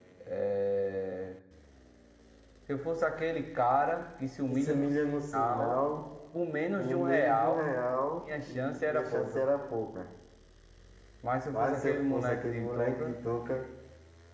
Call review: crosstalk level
present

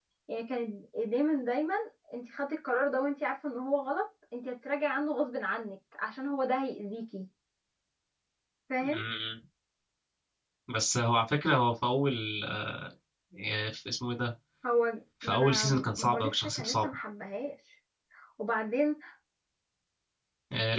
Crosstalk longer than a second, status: present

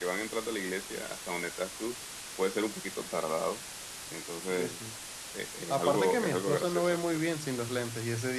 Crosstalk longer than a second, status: present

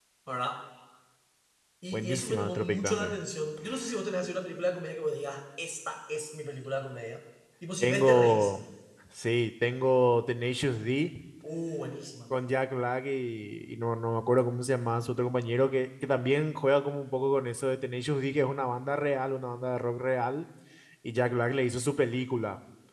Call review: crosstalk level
present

